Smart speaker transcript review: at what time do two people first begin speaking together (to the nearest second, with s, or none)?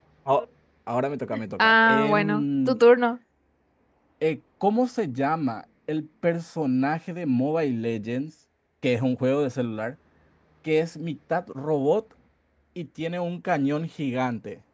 2 s